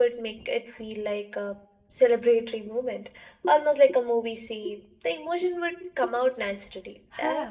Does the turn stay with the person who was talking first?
No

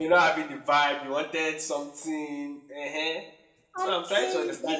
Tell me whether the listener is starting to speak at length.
Yes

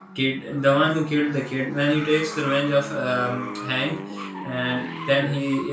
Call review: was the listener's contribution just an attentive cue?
Yes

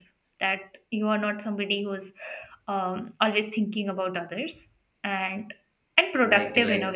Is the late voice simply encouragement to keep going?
No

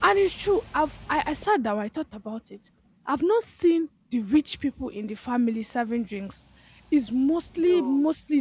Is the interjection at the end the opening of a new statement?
No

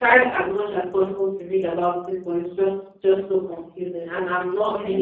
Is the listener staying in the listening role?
No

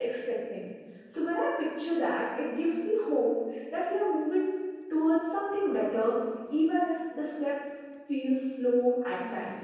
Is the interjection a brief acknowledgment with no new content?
No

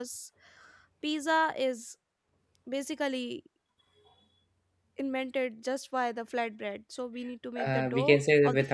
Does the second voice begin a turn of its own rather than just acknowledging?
Yes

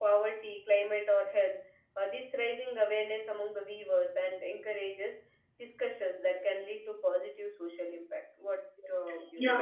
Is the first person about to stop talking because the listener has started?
Yes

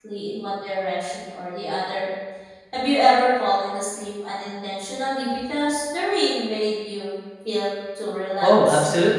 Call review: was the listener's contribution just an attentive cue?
No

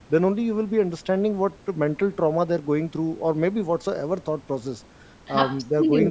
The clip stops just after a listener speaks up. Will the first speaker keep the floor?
Yes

